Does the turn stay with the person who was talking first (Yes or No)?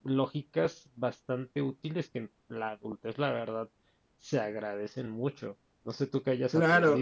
No